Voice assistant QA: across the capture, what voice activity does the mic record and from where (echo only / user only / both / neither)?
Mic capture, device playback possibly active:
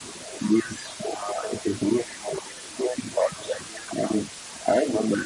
echo only